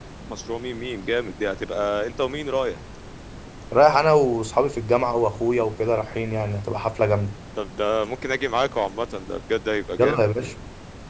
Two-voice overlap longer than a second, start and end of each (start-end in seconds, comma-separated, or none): none